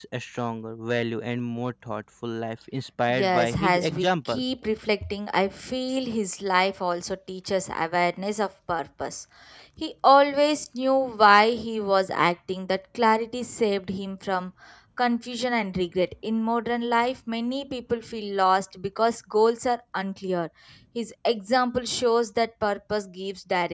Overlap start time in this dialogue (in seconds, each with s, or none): 3.1 s